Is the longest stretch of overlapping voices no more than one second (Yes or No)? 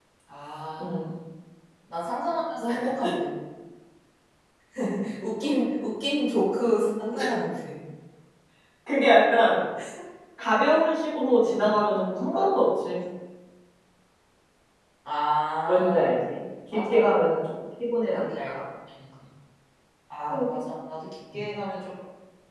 Yes